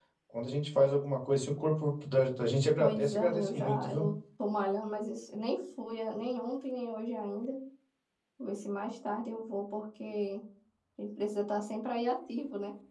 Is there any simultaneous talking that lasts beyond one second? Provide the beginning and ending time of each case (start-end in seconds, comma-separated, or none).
2.8-4.1